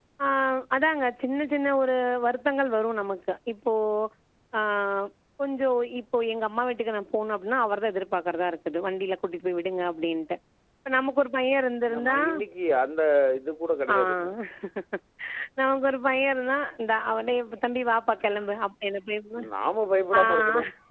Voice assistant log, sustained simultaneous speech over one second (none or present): none